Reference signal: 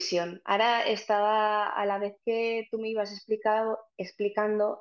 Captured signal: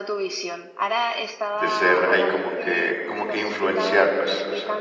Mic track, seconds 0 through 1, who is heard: echo only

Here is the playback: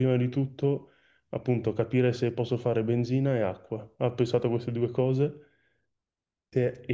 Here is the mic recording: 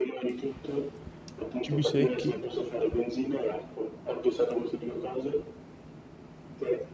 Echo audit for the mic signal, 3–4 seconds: echo only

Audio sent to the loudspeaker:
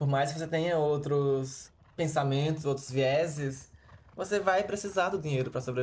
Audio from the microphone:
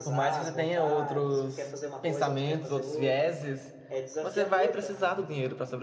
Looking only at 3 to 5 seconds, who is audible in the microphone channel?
both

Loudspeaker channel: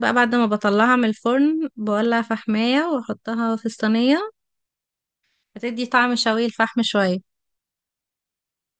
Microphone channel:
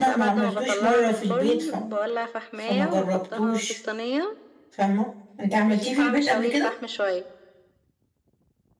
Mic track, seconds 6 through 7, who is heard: both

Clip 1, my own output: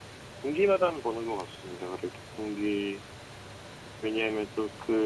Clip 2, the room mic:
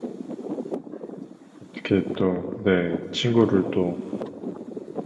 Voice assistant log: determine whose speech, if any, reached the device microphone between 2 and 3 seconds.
user only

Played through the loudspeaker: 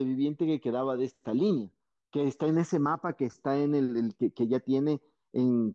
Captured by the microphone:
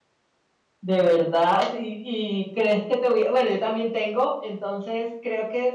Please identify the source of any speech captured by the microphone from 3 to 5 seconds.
user only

